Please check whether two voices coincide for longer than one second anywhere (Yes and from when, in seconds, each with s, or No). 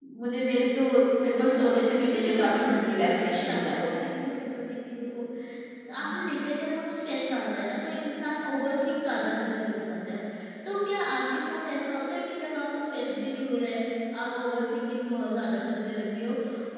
Yes, from 2.1 s